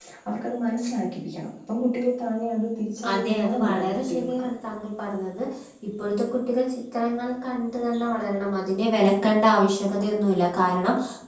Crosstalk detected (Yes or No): Yes